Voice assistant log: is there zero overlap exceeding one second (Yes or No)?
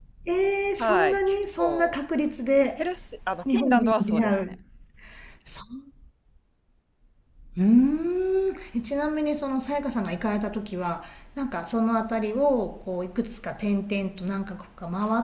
No